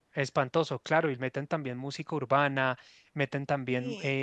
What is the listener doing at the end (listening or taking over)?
listening